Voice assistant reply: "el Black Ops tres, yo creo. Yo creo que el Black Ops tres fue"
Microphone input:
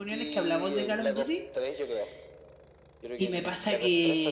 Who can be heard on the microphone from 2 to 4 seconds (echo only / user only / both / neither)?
both